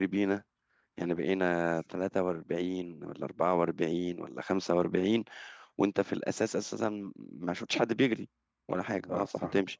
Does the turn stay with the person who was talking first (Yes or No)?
Yes